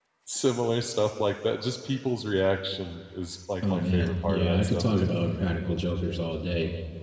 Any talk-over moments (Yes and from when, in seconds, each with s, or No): Yes, from 3.6 s